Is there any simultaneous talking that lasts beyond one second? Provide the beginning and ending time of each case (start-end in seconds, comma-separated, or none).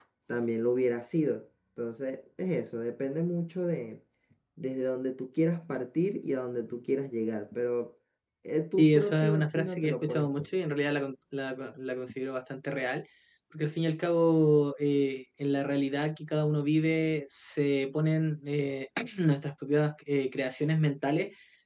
8.8-10.3